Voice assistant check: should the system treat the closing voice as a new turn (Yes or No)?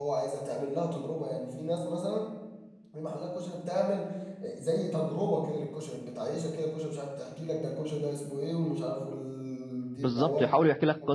Yes